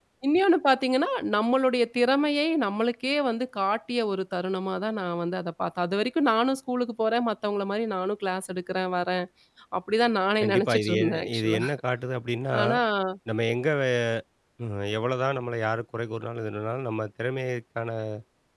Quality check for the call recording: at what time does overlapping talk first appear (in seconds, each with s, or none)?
10.4 s